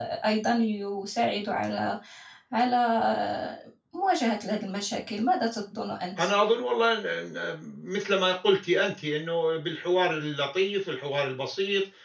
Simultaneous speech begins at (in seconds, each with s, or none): none